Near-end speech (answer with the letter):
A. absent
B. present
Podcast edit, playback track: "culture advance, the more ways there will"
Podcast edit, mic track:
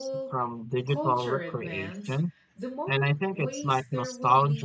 B